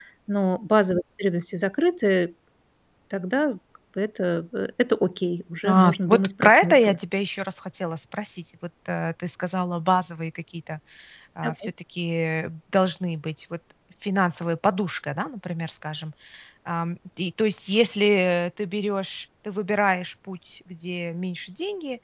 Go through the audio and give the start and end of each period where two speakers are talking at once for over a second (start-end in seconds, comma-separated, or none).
5.6-7.0